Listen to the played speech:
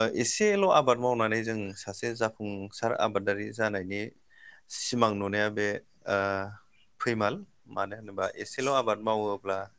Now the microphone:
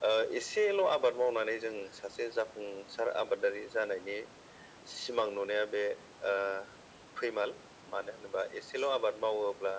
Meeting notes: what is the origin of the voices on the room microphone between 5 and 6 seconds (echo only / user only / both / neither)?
echo only